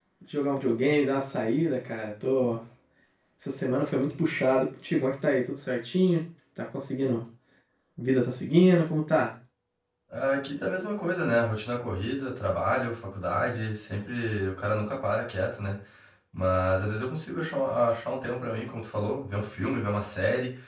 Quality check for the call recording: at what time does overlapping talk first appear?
none

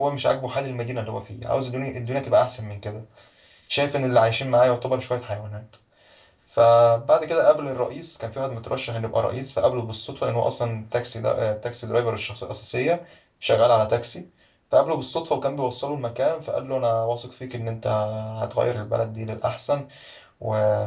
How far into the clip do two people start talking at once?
none

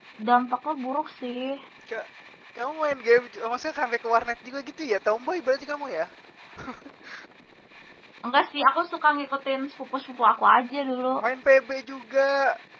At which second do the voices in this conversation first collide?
none

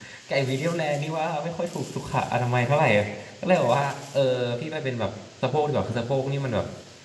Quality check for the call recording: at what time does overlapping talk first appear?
none

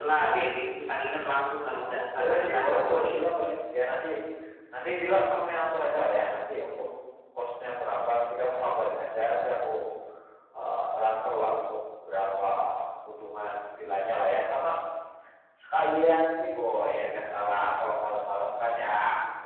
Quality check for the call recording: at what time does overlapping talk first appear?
1.7 s

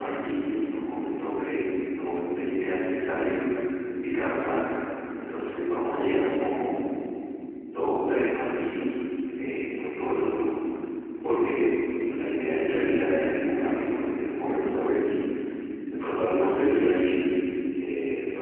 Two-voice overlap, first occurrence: none

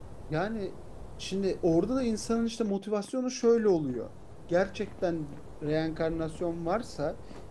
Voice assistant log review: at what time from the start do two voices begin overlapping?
none

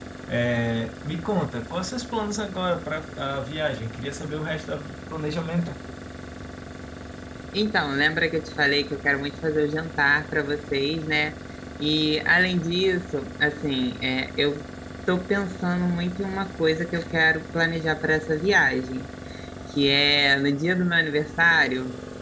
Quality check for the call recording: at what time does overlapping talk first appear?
none

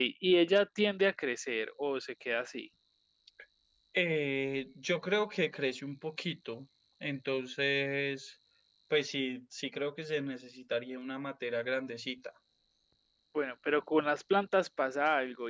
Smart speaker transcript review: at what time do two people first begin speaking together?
none

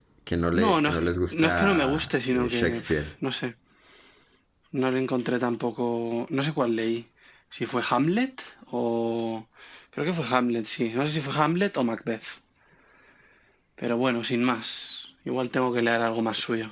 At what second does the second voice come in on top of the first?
0.6 s

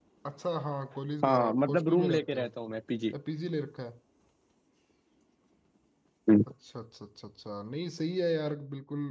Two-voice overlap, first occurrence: 1.2 s

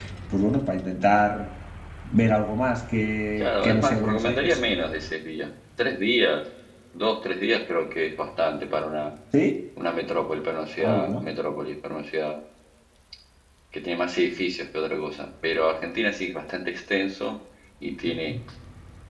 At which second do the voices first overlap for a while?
3.4 s

